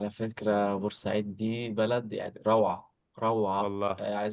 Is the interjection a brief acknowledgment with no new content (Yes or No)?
Yes